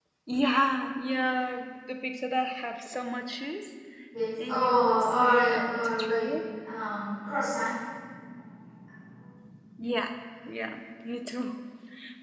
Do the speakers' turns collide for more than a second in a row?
Yes, from 4.5 s

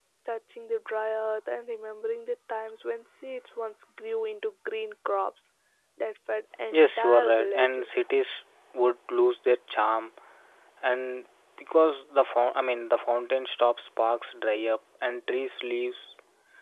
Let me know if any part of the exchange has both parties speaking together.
Yes, from 6.7 s

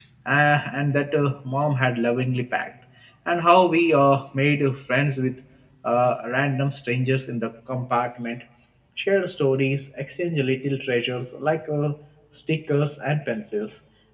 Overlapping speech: No

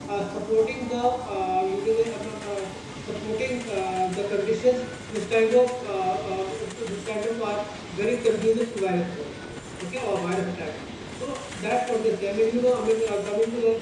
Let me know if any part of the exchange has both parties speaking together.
No

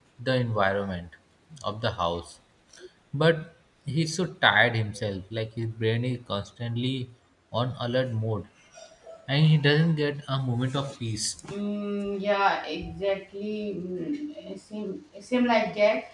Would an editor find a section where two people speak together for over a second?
No

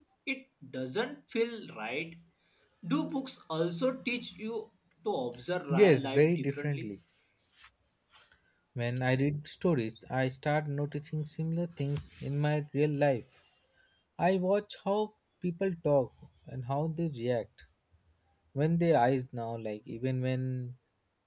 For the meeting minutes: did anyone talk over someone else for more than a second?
Yes, from 5.7 s

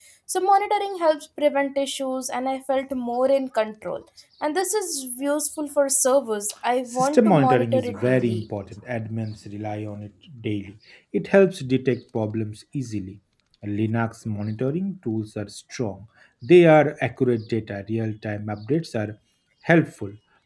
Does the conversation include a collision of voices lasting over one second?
Yes, from 6.9 s

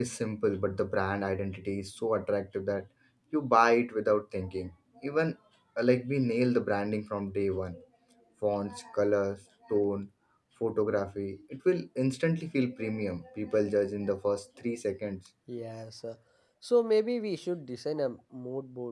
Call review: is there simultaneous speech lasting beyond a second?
No

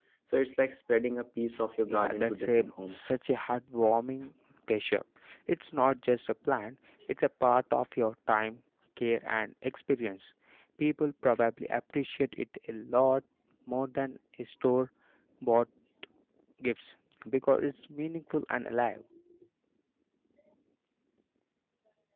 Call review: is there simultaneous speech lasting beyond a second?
Yes, from 1.9 s

